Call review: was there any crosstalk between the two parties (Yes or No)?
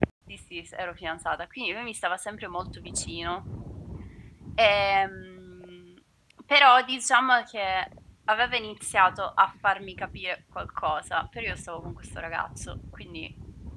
No